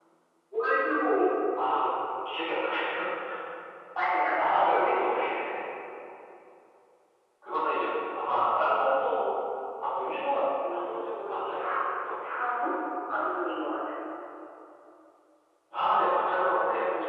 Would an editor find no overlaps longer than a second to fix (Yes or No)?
No